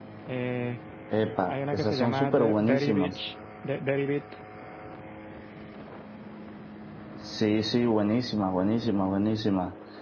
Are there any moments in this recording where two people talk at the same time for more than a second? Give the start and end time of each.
1.5-3.1

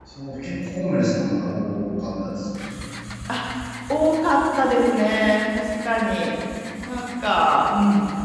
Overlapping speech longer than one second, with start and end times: none

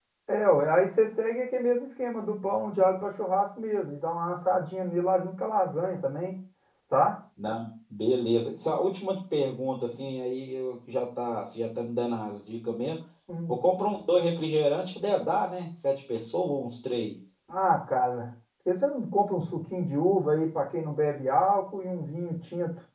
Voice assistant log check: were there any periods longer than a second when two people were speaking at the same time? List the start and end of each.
none

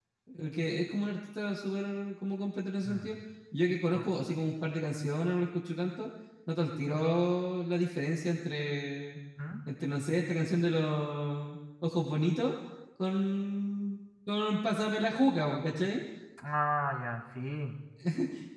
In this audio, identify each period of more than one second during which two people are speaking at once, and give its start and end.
none

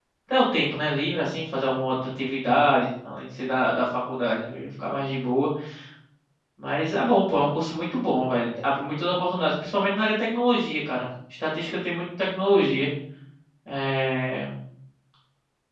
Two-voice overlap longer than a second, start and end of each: none

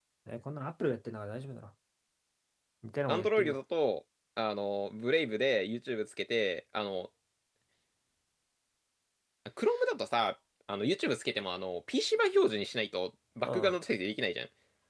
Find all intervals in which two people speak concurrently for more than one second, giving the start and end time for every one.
none

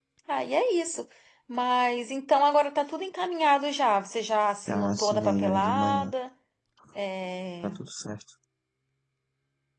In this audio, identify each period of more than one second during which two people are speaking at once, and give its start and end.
4.7-6.1

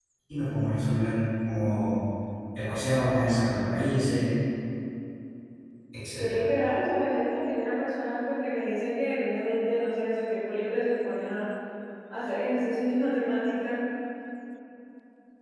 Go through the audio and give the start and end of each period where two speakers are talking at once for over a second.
none

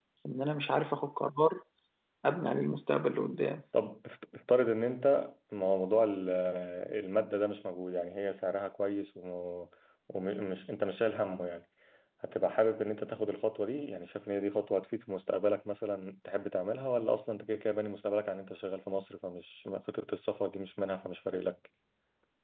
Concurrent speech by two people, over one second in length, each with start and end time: none

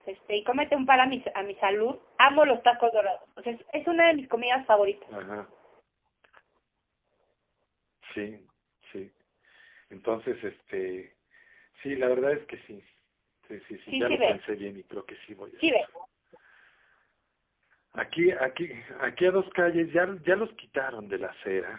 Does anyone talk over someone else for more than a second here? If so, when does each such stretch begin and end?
none

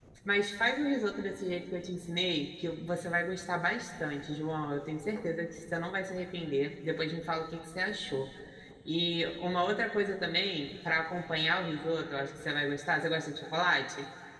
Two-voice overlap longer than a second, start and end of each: none

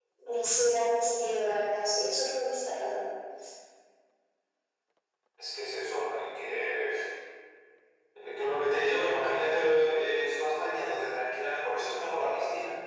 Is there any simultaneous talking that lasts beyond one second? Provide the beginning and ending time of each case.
none

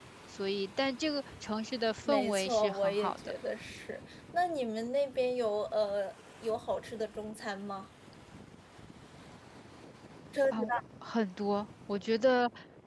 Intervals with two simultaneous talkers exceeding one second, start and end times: 2.1-3.3

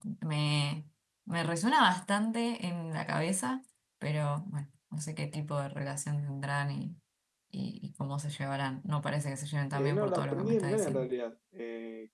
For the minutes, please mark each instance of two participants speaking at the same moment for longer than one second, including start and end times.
9.7-11.1

